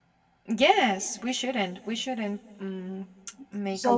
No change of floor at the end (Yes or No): No